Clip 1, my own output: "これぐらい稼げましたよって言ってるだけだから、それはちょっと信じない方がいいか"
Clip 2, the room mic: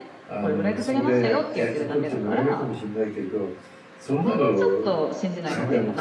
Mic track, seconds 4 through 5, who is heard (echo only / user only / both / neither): both